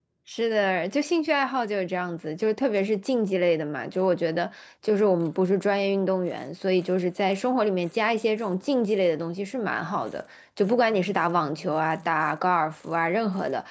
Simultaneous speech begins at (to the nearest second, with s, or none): none